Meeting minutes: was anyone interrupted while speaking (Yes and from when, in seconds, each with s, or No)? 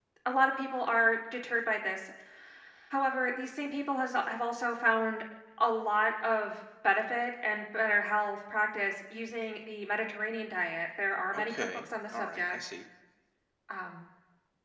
Yes, from 11.3 s